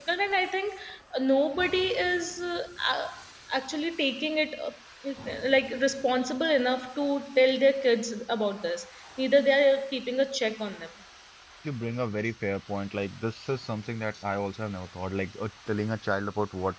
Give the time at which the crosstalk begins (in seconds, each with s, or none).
none